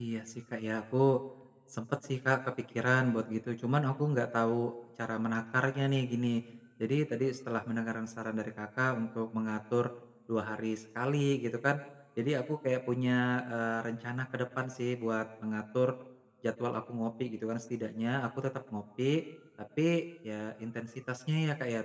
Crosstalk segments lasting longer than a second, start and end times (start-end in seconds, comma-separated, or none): none